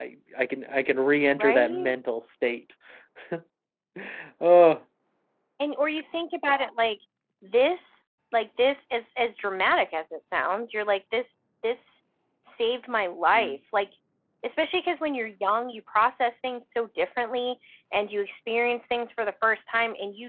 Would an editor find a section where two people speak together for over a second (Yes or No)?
No